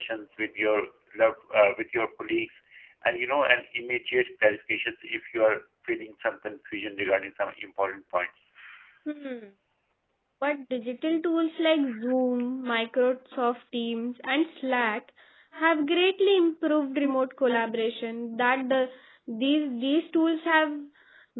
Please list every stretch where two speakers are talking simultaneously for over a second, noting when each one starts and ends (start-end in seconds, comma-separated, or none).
none